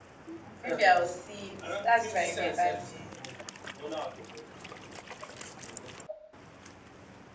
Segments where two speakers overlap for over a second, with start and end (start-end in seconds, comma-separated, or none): 1.8-3.2